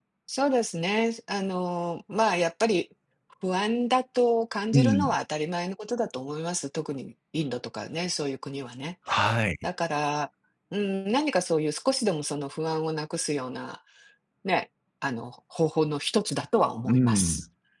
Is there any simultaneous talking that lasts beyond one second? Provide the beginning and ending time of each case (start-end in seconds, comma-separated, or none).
none